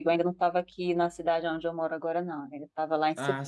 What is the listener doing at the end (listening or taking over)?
listening